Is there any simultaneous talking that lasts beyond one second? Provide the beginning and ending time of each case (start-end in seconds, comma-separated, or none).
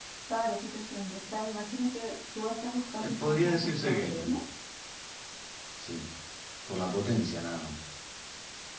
3.0-4.3